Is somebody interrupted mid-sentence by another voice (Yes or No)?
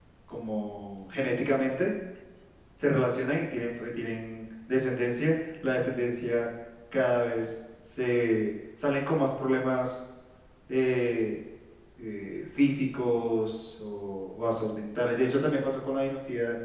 No